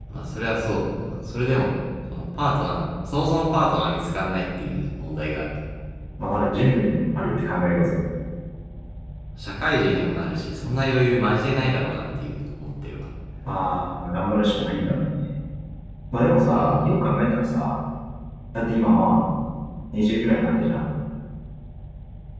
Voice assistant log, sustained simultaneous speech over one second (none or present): none